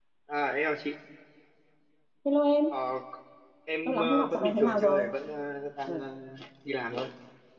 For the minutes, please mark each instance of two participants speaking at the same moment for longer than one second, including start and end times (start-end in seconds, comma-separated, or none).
3.8-5.1